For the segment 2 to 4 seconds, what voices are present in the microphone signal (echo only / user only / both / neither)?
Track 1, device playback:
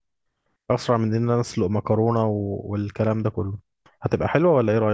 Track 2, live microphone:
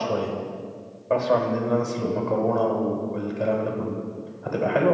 echo only